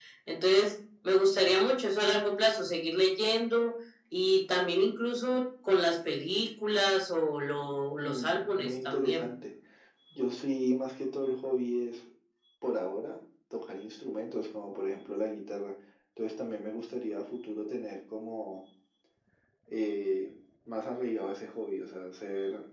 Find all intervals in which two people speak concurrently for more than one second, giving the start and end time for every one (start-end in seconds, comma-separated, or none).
8.0-9.3